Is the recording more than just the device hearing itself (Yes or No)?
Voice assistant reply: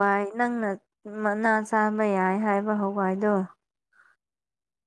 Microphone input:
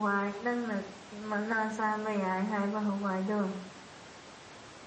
No